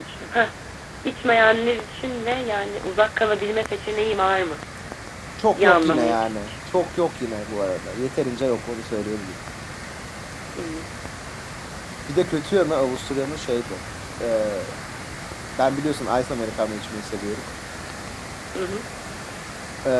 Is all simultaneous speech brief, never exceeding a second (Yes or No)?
No